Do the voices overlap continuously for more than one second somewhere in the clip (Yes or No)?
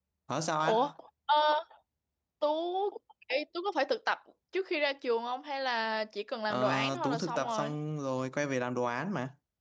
Yes